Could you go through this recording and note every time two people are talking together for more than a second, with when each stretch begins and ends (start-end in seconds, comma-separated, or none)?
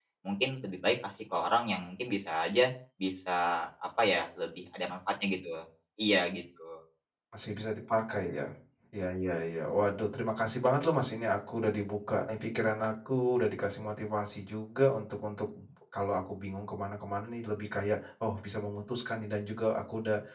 none